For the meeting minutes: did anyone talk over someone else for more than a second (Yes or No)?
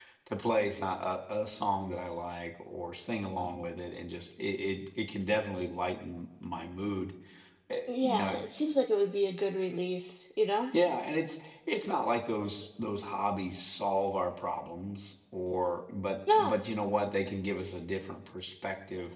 No